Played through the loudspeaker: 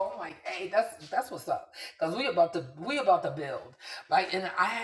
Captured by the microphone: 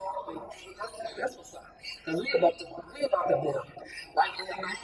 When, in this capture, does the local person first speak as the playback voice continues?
none

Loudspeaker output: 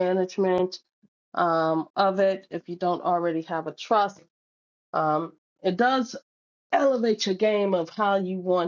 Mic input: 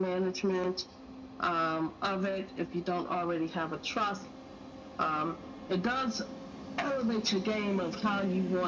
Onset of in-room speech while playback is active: none

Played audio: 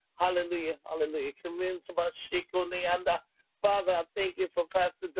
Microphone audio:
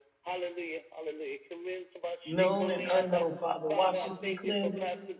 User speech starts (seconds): 2 s

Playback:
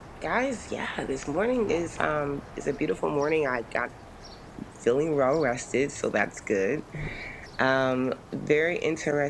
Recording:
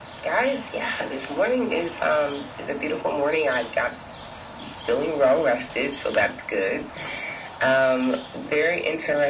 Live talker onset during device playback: none

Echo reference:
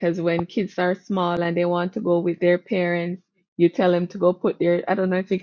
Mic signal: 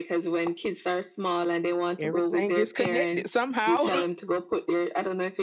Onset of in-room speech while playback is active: 2 s

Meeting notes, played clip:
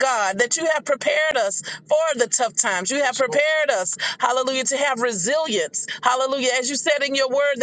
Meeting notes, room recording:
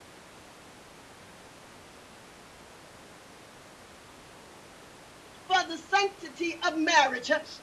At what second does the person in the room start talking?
5 s

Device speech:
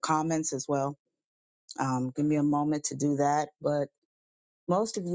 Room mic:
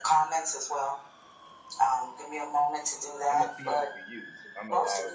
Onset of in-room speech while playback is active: 3 s

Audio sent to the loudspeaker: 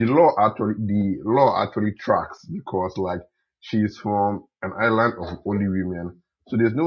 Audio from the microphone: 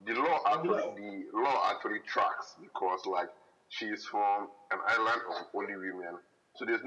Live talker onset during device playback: 0 s

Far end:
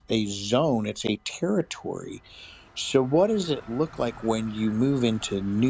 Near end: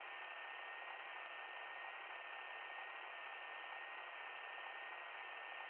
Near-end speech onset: none

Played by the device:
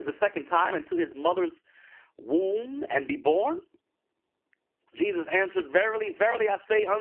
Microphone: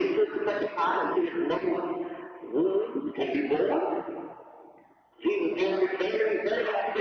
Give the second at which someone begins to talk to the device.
none

